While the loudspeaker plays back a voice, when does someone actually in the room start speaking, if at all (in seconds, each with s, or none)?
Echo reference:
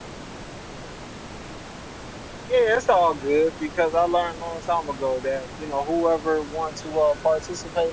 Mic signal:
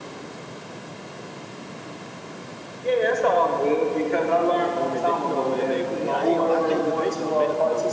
4.6 s